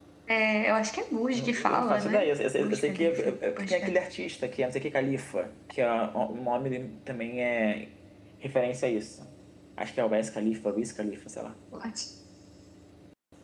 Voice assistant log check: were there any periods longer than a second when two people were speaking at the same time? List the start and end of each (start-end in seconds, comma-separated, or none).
1.3-3.7